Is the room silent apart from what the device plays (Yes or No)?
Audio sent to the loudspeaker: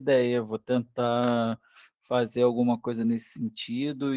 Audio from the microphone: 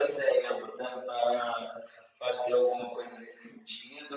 Yes